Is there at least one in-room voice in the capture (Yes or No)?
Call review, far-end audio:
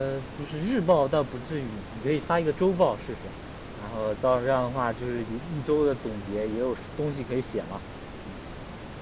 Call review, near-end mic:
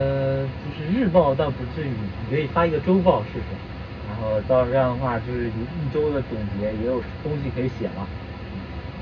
No